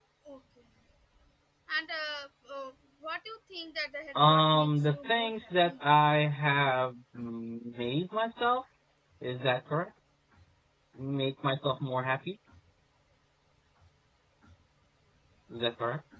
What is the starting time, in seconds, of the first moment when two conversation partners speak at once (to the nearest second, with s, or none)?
4 s